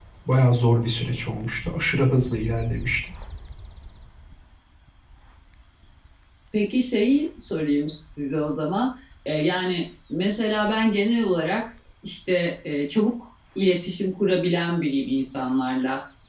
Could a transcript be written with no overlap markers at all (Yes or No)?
Yes